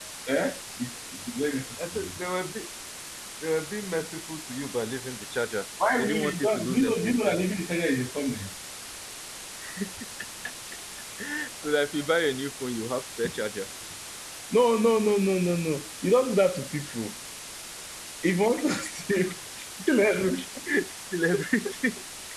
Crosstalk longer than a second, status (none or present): present